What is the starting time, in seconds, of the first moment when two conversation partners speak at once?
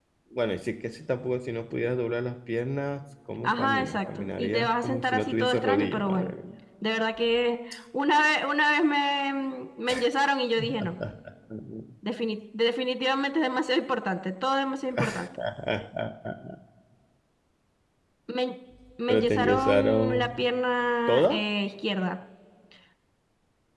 3.4 s

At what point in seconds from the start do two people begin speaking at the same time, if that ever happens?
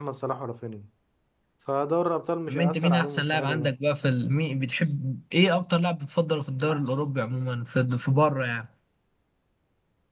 2.5 s

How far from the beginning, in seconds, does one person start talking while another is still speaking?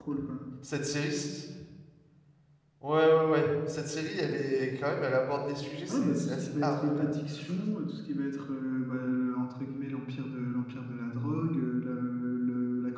5.9 s

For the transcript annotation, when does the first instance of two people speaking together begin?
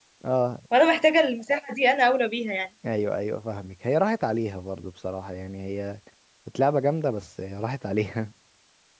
none

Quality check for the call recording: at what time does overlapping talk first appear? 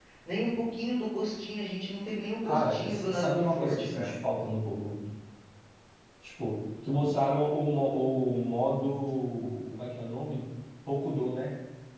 2.4 s

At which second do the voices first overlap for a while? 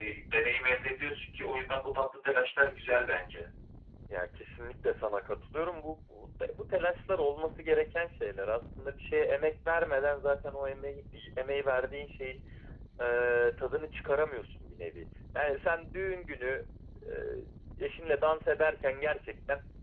none

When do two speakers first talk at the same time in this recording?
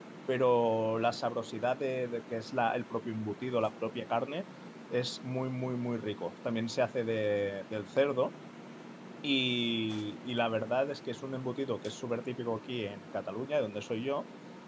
none

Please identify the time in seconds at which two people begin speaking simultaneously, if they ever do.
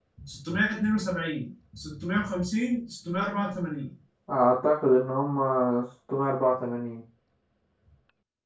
none

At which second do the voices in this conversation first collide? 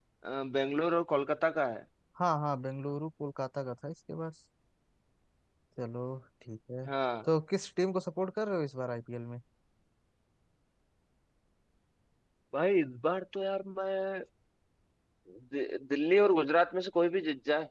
none

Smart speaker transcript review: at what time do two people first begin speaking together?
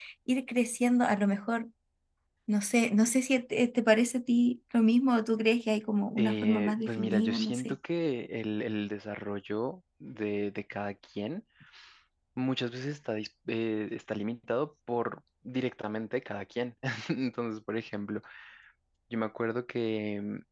6.2 s

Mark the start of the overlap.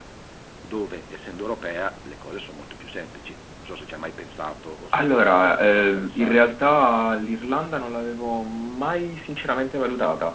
4.9 s

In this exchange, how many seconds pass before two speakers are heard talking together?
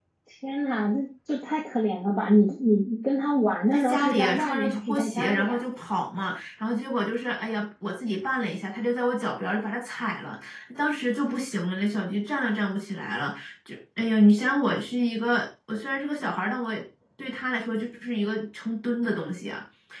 3.7 s

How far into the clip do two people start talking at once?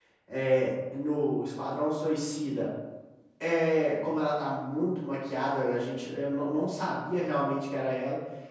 none

